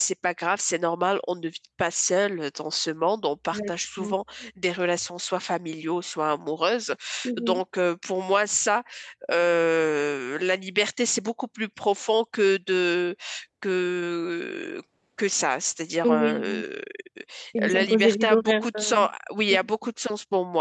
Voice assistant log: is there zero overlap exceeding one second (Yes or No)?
No